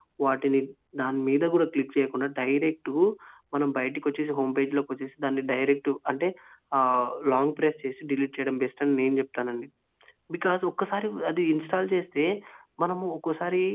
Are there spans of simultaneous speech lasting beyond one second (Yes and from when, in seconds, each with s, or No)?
No